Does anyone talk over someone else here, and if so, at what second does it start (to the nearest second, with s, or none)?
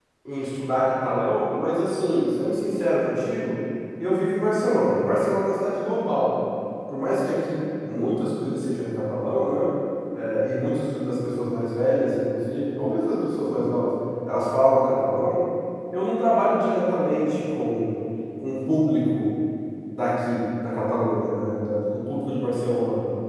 none